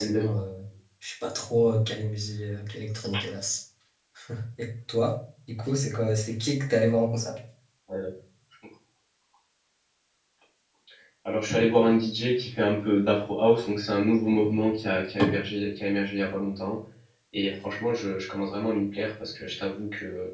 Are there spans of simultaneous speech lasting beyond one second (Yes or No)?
No